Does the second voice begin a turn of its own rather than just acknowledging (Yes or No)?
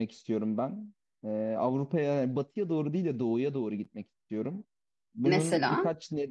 No